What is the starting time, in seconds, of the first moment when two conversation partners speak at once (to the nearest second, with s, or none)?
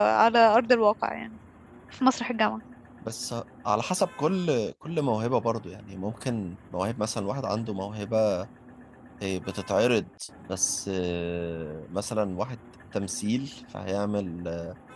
none